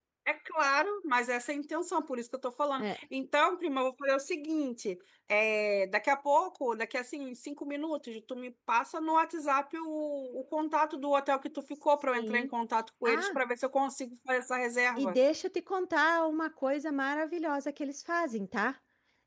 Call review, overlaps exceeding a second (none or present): none